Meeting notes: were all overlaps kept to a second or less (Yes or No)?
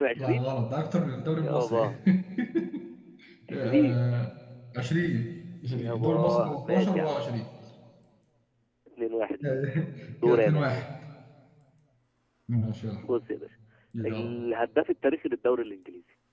No